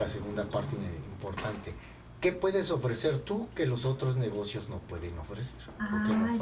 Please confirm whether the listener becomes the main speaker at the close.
Yes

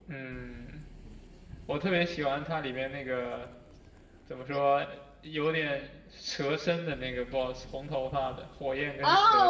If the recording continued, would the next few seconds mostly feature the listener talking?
Yes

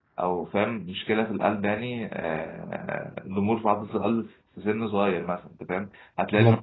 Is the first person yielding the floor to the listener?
No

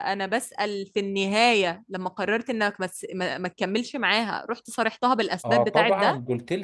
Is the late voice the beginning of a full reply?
Yes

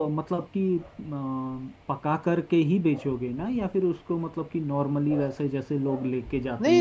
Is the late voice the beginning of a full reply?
Yes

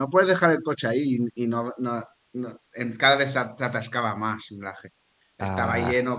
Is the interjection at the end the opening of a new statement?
No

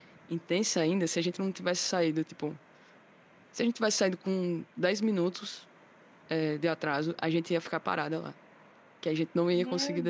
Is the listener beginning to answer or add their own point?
Yes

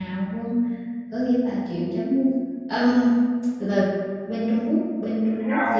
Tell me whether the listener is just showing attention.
No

